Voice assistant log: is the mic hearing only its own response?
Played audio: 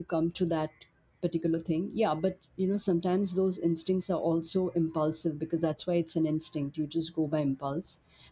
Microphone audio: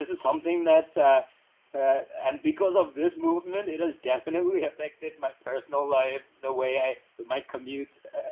No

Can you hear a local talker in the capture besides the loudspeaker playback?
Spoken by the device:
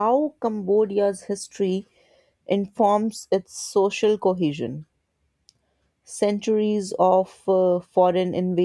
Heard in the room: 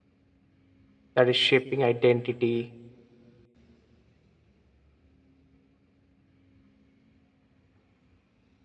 Yes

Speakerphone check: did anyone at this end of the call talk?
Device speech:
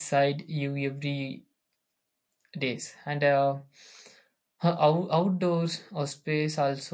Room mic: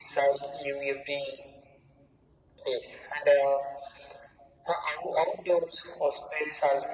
No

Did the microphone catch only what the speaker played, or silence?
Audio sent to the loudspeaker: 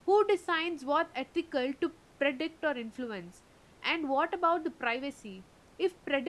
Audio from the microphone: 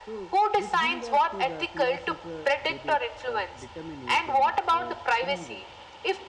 No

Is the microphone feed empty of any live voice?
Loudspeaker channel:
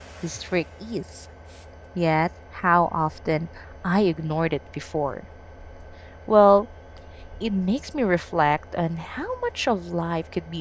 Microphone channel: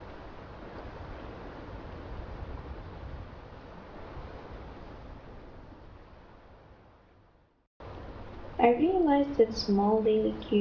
No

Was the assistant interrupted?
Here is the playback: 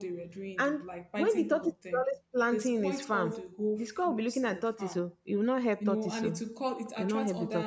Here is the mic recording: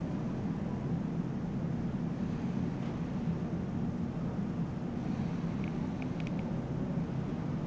No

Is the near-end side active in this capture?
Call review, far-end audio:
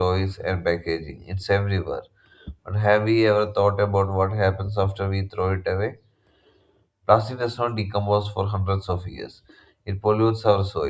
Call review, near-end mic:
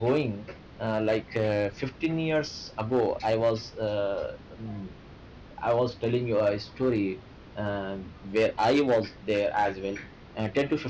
Yes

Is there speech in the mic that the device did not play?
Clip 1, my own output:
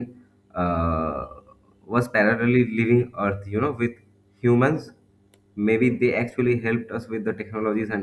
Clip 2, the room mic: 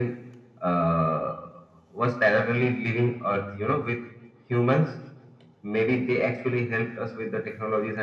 No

